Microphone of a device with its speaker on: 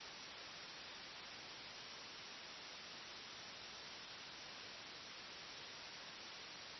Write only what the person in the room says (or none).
none